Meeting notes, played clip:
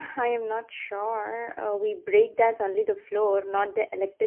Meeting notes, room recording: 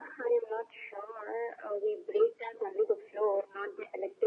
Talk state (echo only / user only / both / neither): echo only